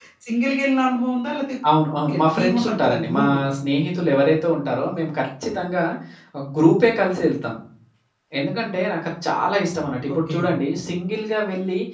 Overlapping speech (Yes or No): Yes